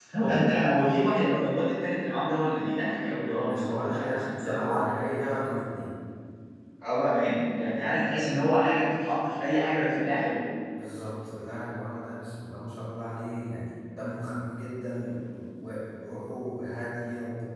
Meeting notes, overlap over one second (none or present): present